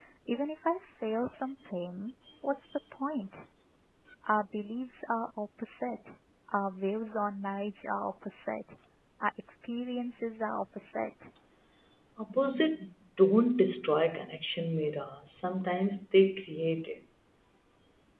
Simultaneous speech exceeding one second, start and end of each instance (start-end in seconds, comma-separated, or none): none